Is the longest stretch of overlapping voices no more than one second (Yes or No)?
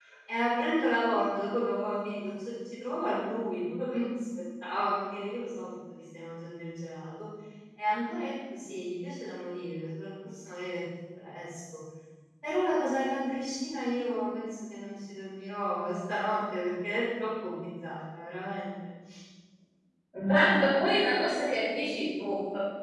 Yes